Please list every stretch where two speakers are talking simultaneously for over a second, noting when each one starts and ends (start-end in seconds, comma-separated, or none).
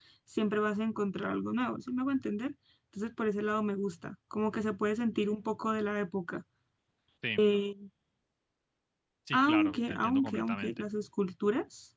9.3-10.8